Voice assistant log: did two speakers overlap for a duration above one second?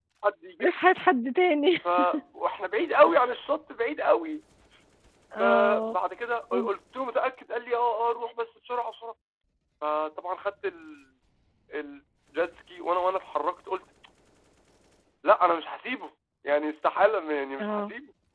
No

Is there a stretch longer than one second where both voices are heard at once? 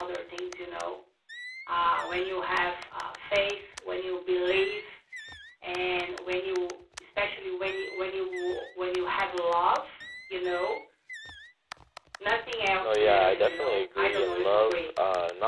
Yes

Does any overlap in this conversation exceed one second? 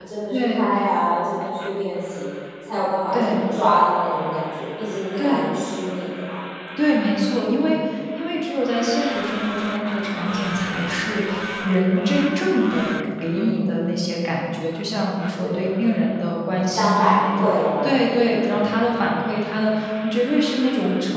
Yes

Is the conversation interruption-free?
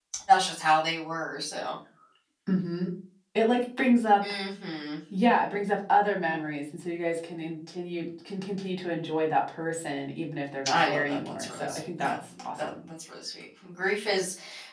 No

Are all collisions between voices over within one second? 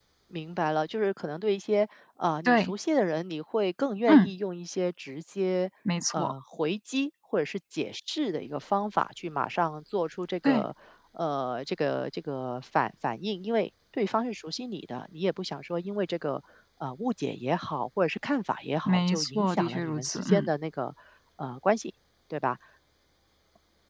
No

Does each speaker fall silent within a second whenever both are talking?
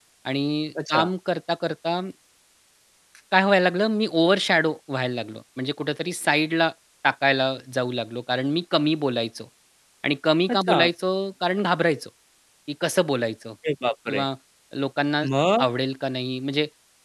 Yes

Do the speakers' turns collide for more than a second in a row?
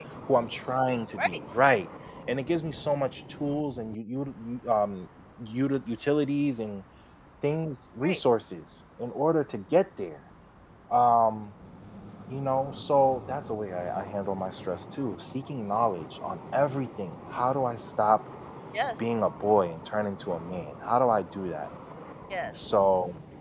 No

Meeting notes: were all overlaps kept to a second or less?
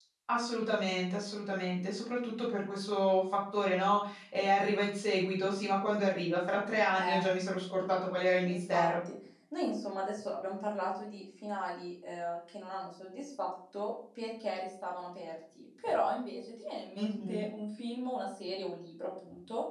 Yes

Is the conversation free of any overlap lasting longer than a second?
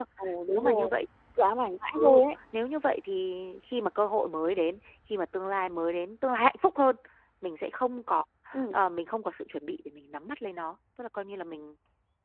Yes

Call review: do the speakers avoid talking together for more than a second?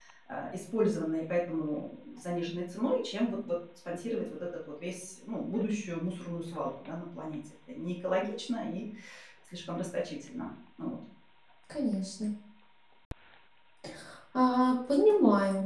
Yes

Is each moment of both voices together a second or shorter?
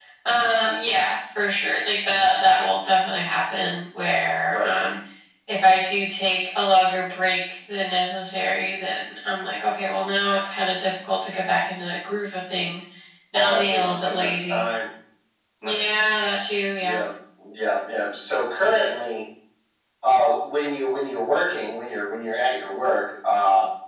No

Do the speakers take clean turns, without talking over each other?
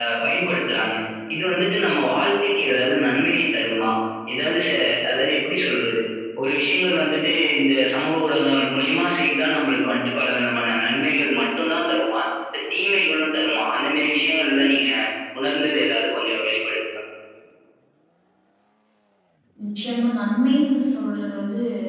Yes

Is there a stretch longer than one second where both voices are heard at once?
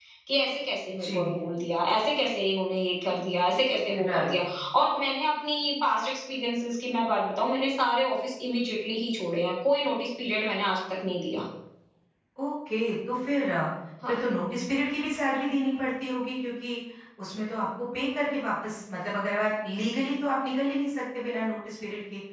No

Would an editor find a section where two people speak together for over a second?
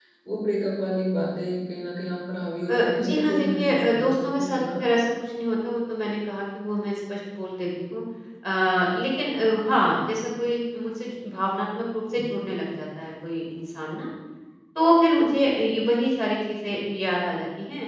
Yes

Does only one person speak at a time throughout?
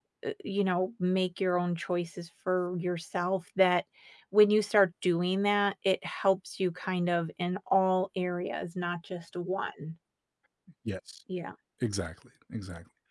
Yes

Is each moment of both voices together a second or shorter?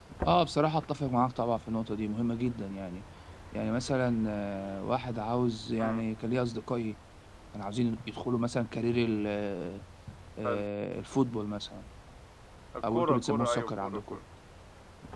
No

